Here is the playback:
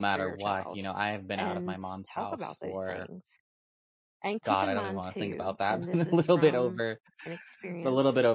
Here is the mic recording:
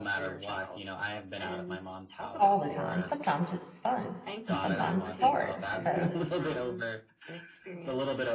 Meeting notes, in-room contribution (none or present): present